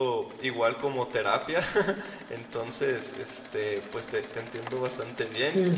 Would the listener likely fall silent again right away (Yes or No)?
No